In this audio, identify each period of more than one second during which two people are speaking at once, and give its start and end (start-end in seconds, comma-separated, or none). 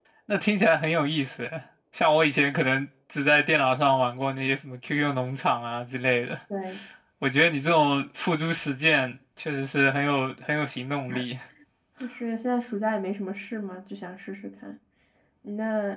none